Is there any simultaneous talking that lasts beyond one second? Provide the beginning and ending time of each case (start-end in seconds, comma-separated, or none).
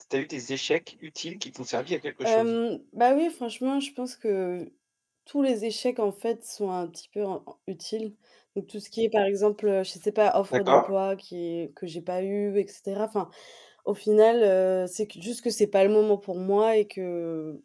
none